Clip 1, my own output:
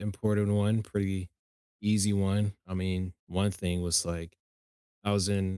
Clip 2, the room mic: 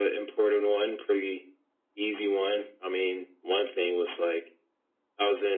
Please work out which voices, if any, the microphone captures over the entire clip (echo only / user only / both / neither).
echo only